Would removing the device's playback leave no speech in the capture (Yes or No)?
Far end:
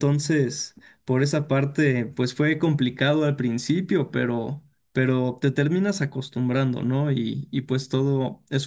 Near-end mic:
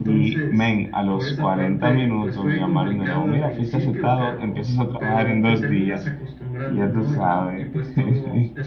No